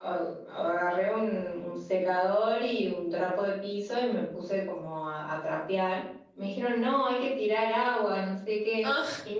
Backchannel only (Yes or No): Yes